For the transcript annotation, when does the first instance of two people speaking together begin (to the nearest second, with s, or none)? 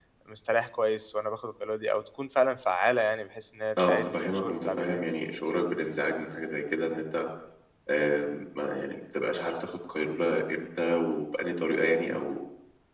4 s